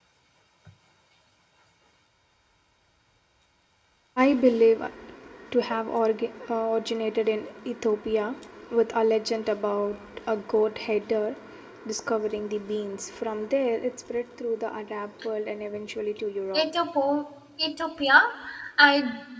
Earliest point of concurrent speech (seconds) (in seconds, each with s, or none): none